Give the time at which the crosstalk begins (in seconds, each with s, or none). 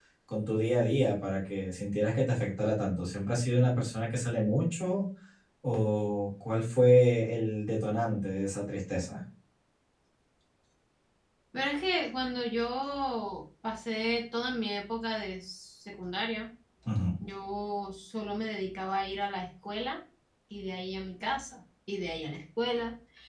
none